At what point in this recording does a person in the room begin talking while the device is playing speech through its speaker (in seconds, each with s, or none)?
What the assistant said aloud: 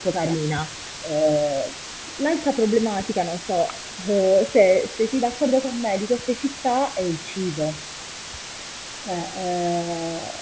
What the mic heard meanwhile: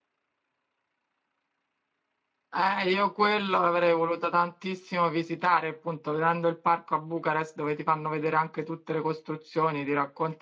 2.5 s